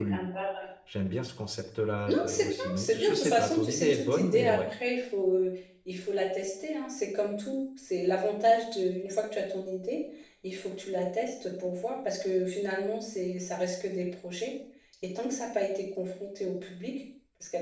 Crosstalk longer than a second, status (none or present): present